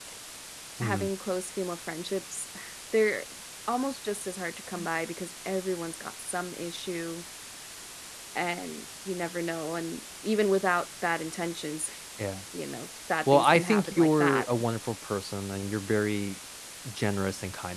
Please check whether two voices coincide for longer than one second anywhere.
Yes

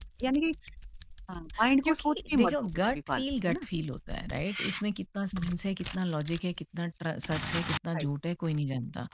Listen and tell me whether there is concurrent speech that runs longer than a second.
Yes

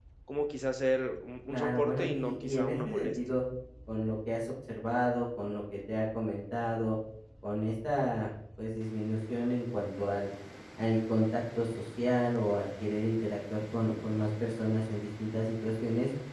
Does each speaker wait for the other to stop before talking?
No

